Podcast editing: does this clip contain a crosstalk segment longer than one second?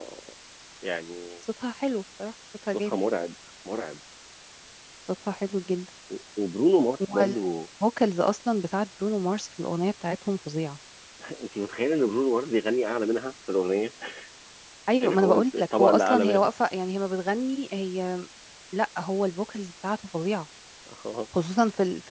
Yes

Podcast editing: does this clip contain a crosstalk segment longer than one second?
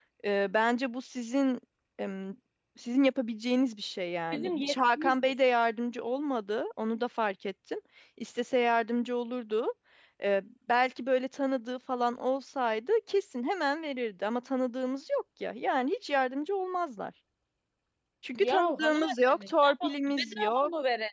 Yes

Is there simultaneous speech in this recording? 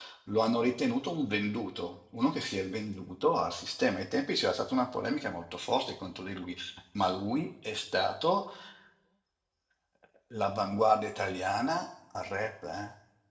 No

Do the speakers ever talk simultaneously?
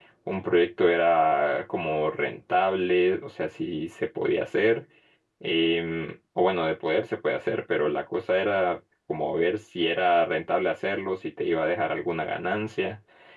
No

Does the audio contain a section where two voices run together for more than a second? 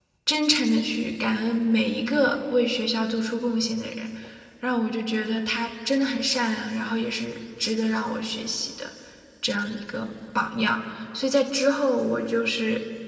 No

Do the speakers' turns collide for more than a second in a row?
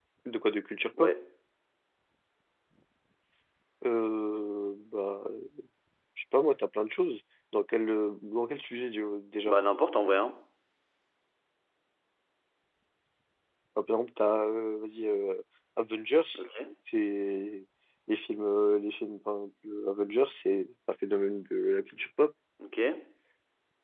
No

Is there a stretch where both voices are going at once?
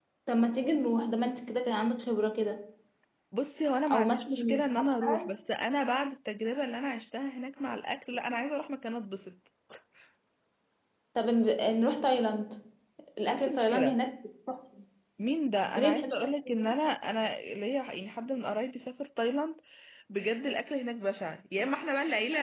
Yes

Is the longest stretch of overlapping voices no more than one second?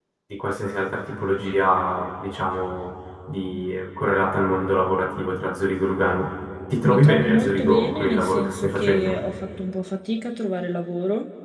No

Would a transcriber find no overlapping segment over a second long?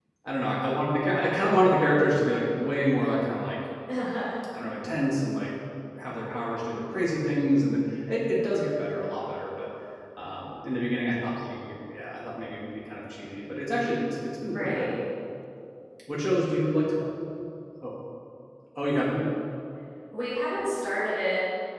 Yes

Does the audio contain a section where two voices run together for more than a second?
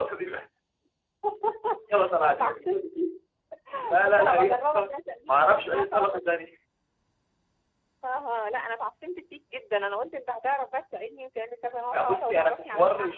Yes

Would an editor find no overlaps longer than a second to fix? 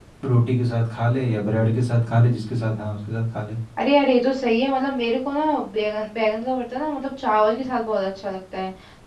Yes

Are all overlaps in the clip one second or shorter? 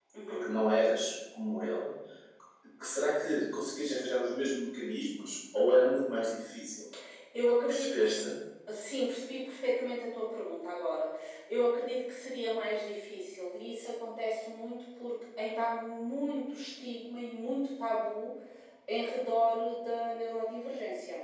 Yes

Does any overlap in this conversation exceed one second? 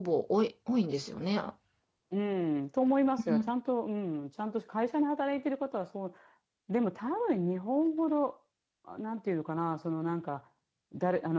No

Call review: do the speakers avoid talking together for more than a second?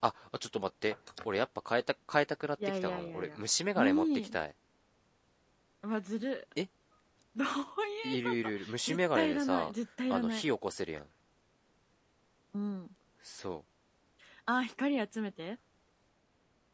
No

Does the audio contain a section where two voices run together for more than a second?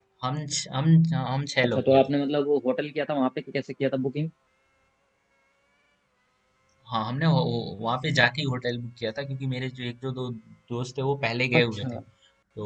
No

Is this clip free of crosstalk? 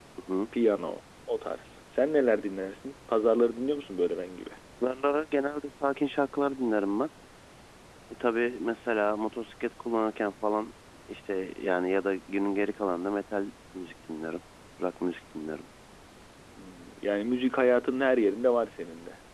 Yes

